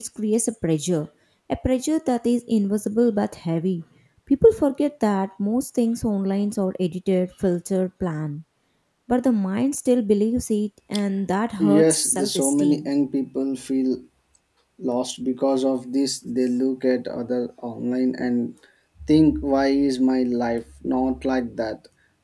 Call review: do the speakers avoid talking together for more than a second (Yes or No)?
No